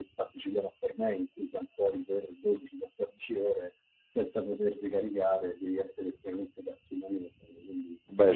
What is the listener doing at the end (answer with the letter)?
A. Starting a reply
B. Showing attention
B